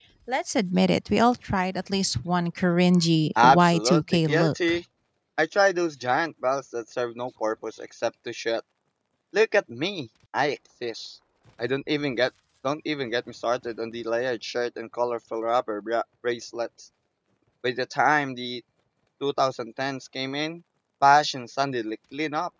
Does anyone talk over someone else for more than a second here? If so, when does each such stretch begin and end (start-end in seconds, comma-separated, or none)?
3.4-4.8